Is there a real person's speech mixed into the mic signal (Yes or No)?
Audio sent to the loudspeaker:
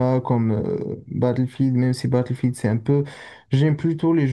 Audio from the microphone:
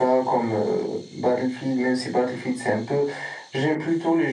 No